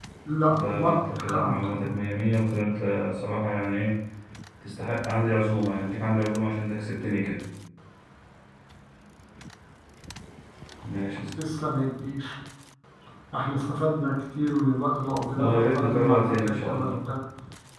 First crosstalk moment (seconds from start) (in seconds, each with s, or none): 0.5 s